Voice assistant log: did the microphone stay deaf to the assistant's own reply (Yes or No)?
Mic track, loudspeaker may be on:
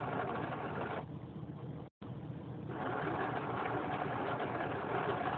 Yes